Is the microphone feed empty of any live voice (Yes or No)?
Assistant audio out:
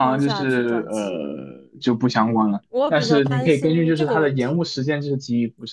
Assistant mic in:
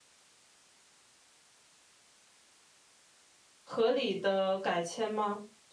No